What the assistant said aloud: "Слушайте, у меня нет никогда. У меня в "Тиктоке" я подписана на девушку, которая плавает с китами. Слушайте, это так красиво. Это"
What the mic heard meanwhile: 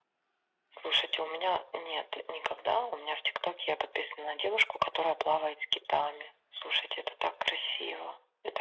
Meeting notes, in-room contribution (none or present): none